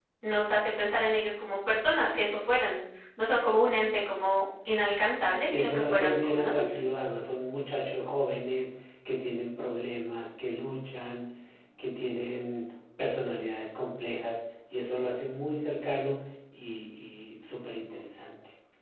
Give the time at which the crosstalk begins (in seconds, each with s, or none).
5.5 s